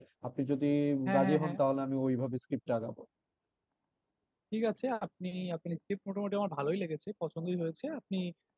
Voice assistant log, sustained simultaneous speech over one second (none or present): none